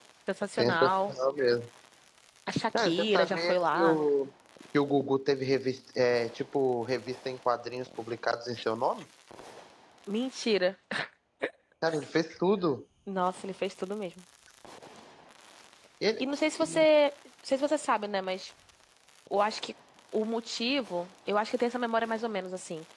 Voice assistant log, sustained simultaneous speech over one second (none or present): present